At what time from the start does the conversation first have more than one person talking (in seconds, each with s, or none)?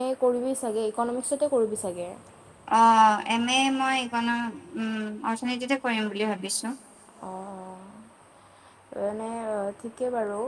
none